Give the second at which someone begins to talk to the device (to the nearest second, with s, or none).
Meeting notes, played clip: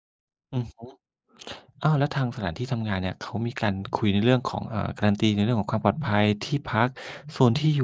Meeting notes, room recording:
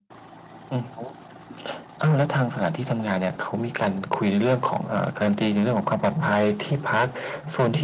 none